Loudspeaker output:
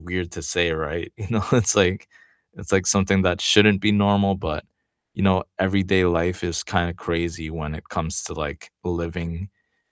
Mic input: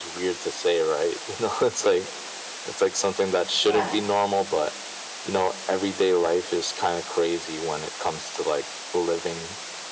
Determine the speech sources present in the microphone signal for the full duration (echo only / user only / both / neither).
both